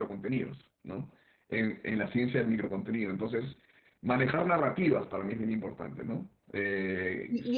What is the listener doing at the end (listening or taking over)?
taking over